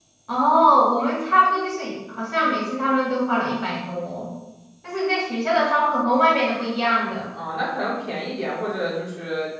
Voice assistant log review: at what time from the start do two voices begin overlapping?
none

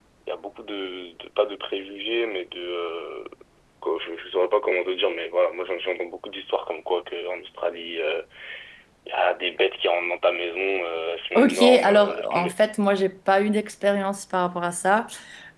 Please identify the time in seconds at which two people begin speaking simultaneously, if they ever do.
11 s

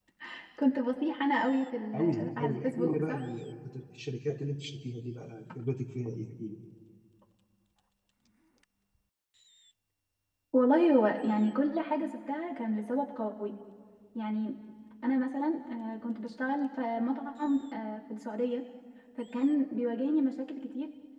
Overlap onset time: 2 s

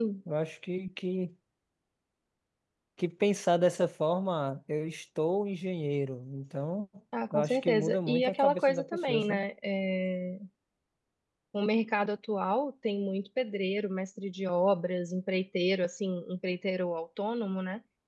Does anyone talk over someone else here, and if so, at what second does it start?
7 s

